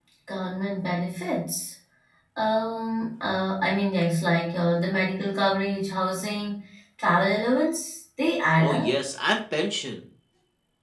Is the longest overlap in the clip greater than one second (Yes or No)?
No